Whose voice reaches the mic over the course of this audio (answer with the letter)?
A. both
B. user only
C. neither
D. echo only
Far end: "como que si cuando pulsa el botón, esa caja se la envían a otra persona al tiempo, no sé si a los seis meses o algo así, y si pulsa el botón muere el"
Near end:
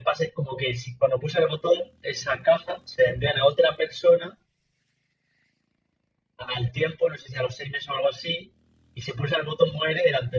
D